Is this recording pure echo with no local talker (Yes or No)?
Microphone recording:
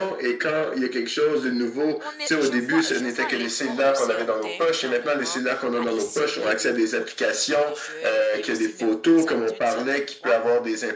No